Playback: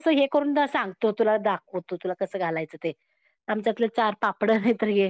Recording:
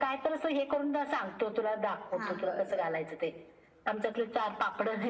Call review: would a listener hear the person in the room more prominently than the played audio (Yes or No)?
No